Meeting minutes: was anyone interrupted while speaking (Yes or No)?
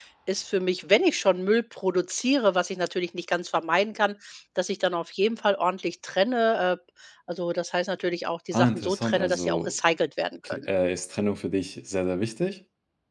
Yes